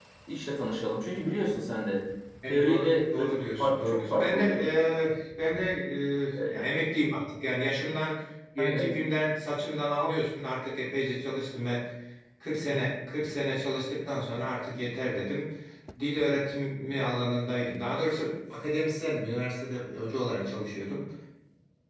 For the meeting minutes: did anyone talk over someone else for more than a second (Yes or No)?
Yes